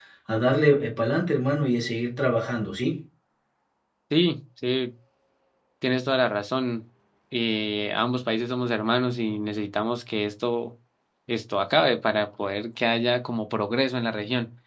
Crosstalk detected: No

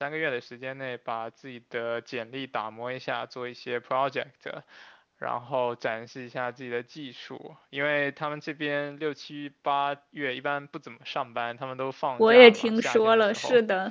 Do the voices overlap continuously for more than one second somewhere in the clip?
Yes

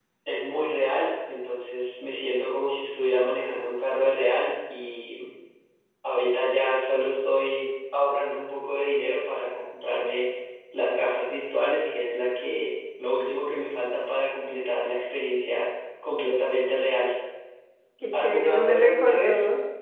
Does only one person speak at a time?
No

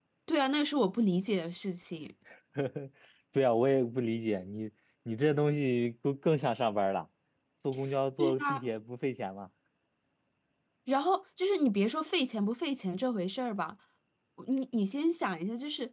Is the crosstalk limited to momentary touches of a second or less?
Yes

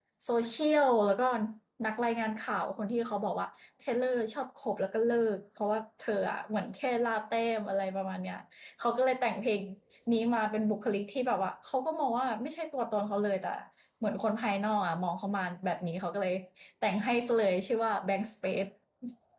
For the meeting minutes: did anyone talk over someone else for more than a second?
No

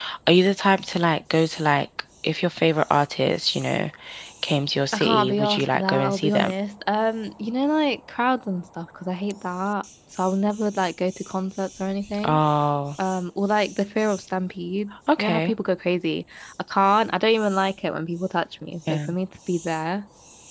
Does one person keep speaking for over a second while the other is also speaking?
Yes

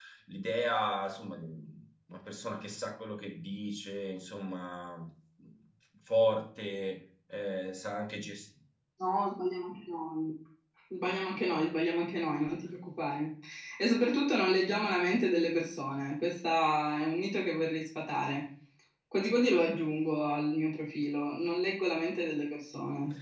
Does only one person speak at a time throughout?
Yes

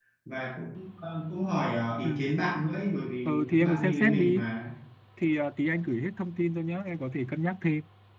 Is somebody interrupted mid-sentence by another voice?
Yes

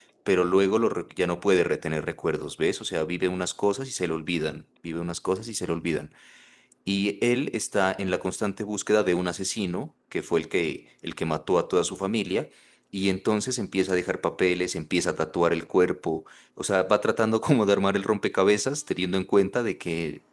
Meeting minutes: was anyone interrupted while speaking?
No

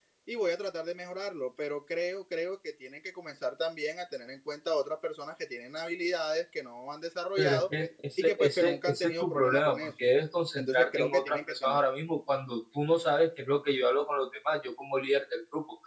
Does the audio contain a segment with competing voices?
Yes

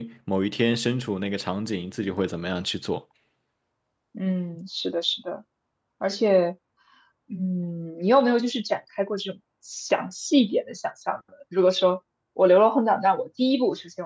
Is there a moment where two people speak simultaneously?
No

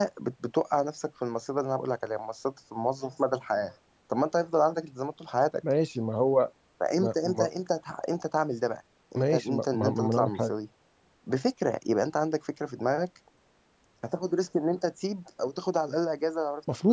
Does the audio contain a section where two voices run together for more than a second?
Yes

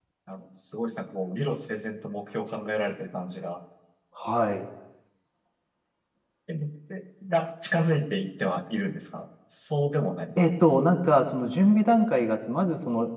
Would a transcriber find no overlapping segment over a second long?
Yes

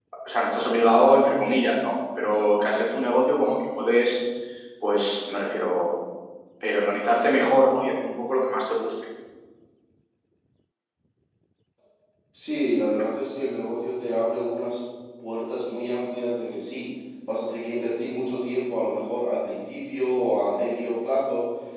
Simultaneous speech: No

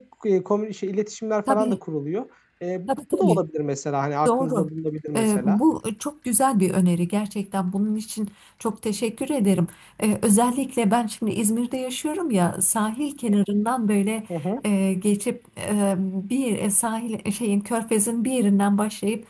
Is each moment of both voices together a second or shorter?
Yes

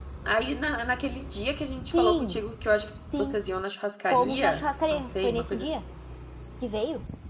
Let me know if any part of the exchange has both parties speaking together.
Yes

